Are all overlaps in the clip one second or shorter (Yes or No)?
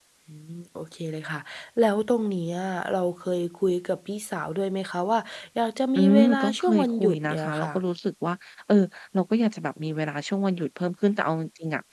No